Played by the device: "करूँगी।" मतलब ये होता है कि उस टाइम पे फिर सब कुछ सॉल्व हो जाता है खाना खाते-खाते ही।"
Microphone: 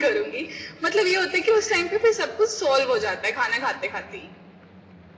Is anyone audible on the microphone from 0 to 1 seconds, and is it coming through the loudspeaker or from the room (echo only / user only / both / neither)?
echo only